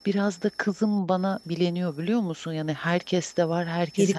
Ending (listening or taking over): listening